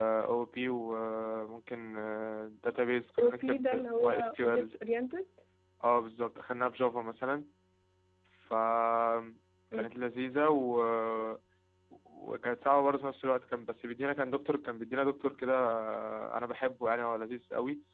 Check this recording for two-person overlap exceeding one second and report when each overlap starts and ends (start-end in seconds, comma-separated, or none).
3.2-4.7